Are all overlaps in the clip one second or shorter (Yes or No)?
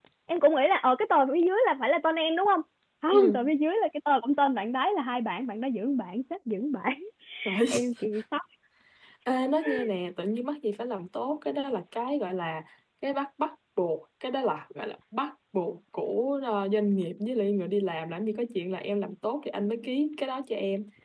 Yes